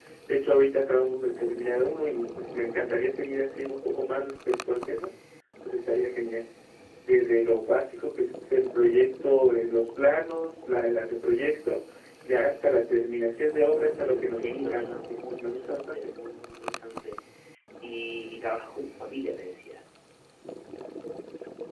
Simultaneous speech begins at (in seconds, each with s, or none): 14.0 s